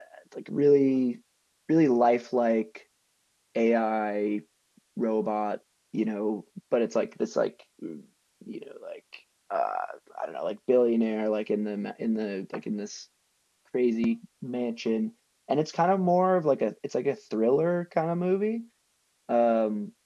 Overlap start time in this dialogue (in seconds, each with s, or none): none